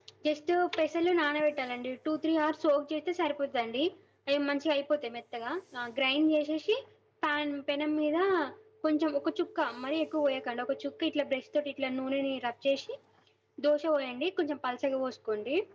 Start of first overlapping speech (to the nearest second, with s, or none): none